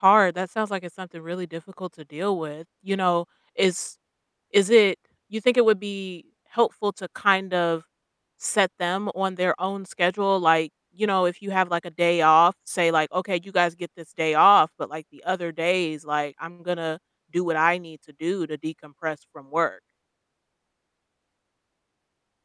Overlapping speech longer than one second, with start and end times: none

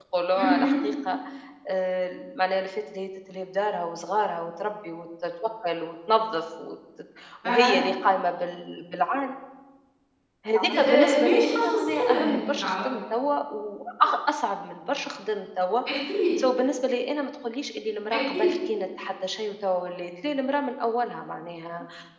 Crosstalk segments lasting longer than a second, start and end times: 10.7-12.8

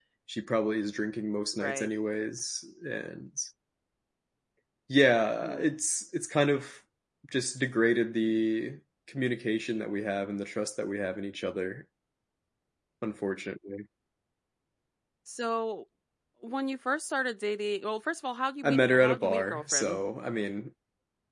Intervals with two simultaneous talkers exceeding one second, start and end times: 18.6-20.0

